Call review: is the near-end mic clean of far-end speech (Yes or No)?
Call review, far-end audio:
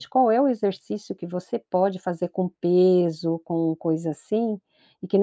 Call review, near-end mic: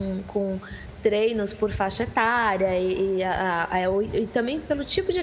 Yes